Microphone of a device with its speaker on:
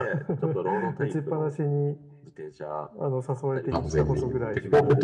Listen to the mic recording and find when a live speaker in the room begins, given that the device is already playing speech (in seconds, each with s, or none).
3.7 s